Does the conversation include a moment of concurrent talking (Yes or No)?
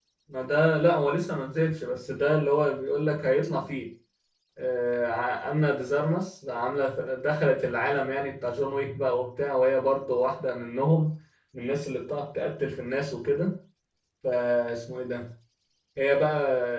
No